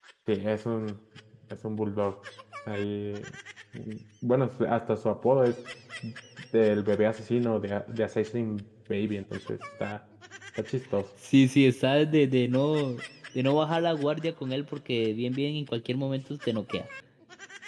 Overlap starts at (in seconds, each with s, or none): none